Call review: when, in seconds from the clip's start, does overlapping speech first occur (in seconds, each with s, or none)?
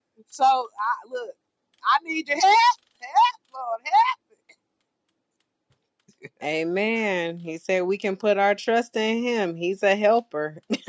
none